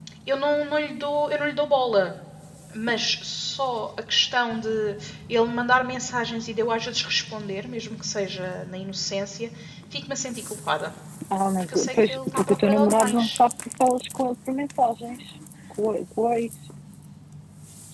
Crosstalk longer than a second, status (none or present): present